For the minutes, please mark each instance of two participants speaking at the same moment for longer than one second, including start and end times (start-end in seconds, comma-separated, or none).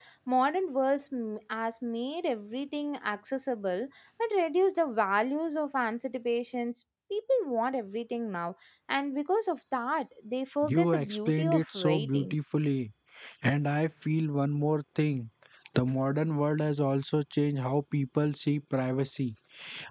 10.6-12.4